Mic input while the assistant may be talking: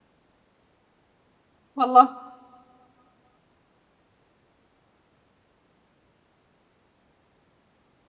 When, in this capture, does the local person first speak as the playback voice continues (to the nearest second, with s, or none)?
2 s